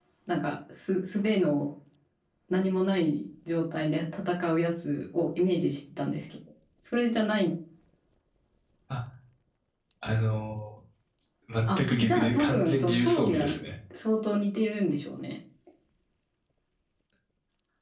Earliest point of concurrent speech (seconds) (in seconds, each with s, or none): 11.8 s